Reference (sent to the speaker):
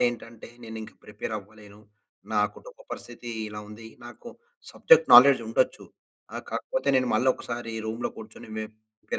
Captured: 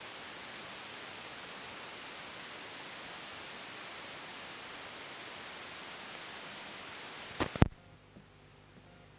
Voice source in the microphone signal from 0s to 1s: neither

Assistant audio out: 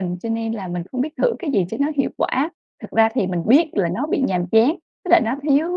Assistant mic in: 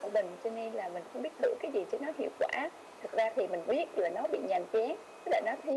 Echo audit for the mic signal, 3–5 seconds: echo only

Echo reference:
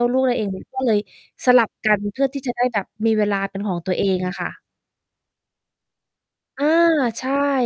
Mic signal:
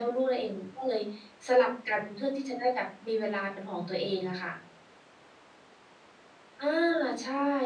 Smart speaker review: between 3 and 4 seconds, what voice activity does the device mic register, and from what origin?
echo only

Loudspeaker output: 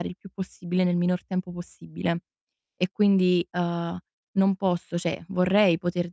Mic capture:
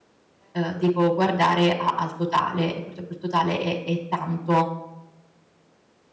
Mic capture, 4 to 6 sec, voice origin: user only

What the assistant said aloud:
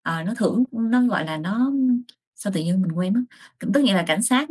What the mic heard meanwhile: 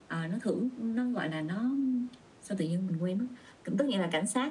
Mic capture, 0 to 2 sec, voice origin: echo only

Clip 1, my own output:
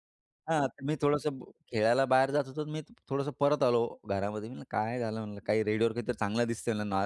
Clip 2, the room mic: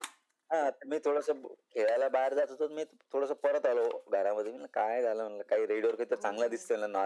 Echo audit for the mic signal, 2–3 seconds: echo only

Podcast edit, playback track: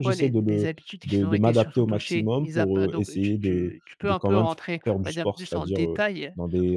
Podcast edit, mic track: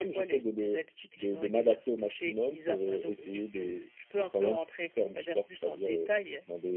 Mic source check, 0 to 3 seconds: echo only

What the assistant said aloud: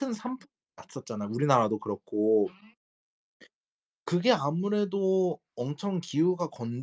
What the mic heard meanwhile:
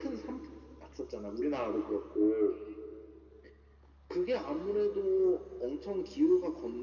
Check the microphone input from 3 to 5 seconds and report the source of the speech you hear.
echo only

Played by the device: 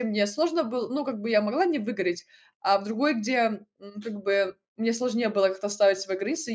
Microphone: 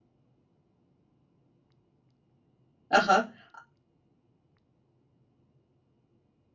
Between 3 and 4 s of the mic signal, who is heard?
user only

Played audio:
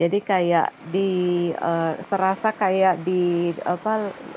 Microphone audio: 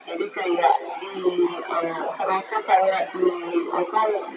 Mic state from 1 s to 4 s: echo only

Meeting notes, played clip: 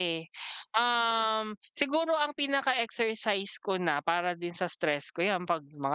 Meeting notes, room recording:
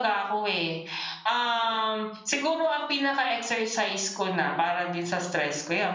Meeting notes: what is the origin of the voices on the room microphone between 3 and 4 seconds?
echo only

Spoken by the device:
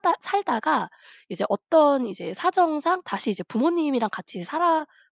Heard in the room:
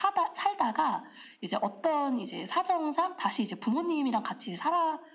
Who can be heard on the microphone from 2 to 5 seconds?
echo only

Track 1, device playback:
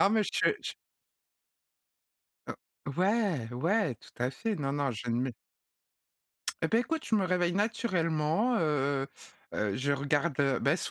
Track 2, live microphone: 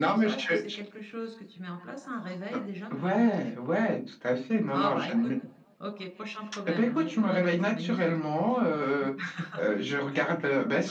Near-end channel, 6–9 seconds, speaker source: both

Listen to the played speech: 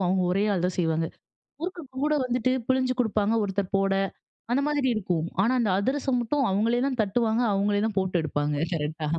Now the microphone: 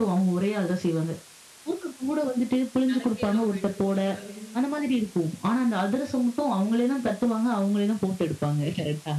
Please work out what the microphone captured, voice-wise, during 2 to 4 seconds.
both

